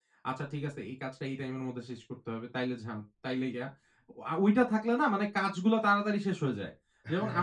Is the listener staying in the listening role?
Yes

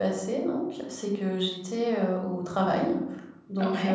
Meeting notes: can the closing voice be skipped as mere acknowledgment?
Yes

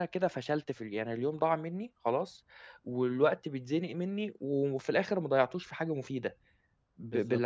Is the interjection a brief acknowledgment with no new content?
No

